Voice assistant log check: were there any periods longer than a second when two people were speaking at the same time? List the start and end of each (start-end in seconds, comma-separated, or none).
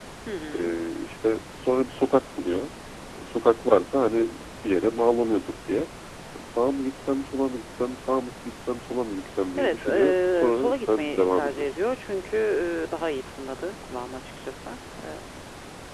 9.6-11.8